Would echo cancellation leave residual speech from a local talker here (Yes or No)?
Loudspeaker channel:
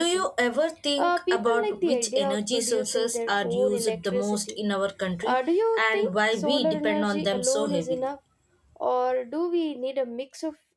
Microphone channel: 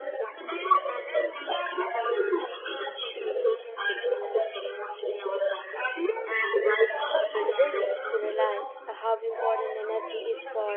Yes